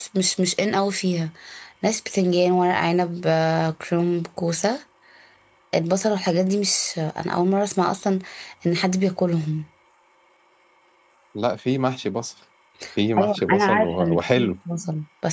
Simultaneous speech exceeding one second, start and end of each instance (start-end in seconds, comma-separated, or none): 13.2-14.5